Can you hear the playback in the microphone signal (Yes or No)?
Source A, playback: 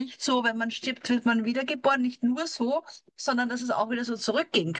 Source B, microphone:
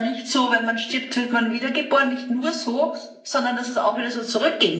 Yes